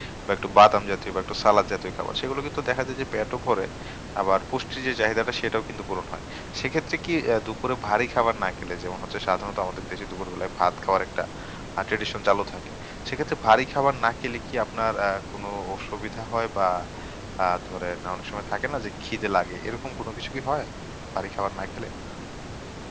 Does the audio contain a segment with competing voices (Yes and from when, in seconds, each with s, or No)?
No